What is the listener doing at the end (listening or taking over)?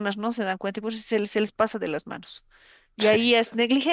listening